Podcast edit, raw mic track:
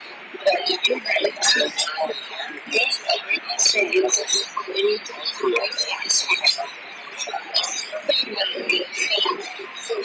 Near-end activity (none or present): none